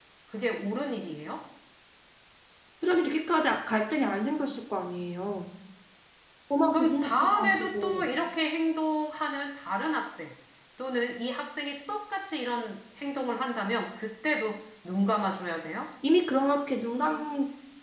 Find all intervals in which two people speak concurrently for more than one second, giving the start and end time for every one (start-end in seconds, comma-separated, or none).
6.7-8.1